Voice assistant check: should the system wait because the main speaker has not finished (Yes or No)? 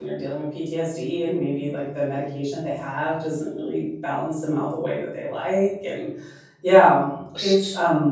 Yes